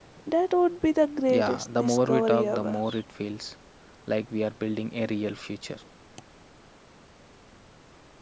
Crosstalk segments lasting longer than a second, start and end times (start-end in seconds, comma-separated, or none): 1.3-2.8